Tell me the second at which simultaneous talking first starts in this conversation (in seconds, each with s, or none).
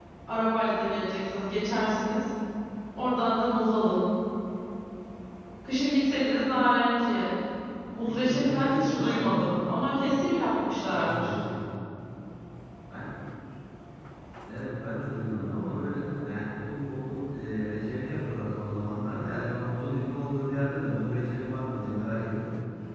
8.0 s